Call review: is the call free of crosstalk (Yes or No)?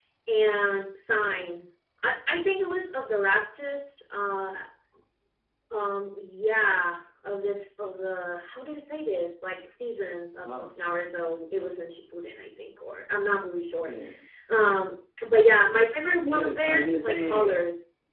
No